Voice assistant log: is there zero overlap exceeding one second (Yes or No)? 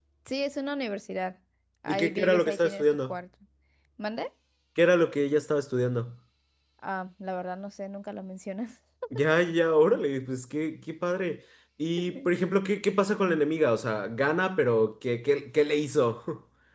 No